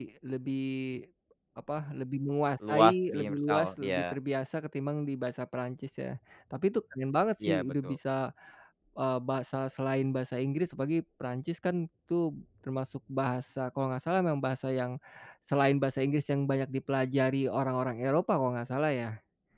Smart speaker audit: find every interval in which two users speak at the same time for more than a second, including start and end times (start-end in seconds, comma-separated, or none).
2.7-4.0